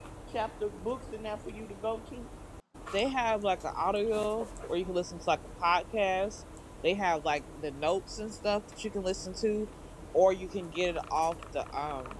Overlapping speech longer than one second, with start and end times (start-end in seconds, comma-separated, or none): none